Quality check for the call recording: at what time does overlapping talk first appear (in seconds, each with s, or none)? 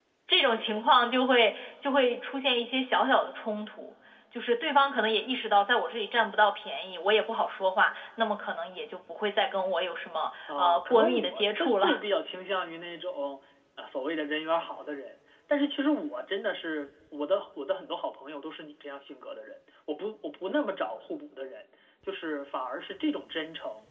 10.5 s